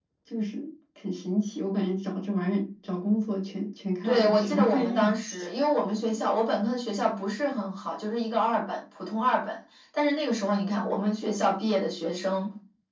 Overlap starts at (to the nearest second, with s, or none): 4 s